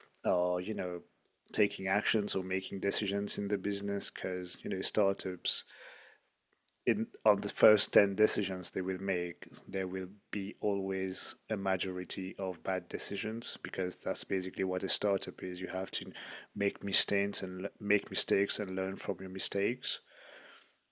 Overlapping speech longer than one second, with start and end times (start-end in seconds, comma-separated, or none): none